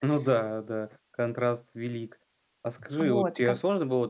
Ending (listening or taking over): listening